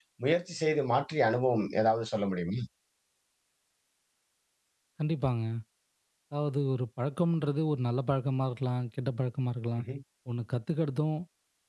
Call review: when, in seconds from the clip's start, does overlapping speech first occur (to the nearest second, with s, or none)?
none